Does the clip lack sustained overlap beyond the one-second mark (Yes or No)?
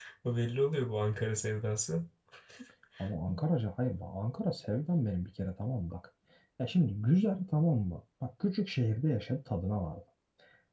Yes